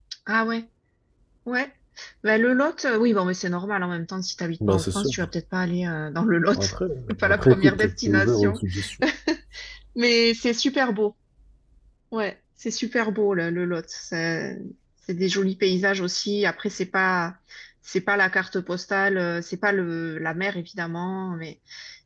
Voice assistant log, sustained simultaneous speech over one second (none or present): present